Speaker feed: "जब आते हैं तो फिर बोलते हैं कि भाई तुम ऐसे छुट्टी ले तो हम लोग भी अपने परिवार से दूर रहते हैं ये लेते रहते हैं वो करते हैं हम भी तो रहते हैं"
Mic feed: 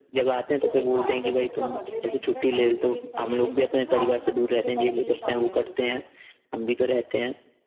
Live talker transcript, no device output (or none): तो एक काम कर सकते हो आप अगले महीने का सैलरी भी इस महीने दे सकते हो मैं आपकी कंपनी के साथ तीन साल रह चुकी हूँ